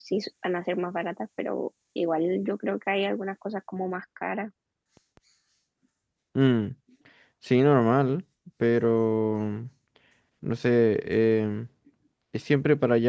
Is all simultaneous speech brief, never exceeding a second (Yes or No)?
Yes